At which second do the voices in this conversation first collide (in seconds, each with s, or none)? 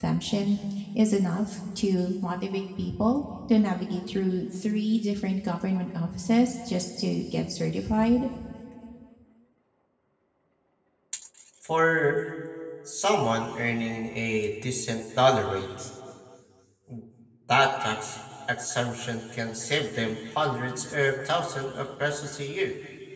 none